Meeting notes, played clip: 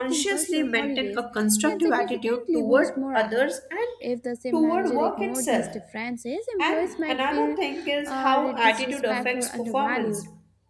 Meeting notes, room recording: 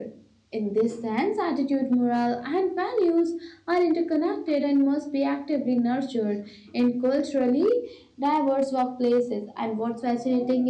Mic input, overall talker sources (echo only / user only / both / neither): user only